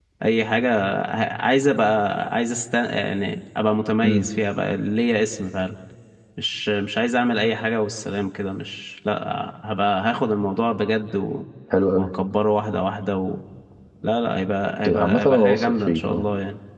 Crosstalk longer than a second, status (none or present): present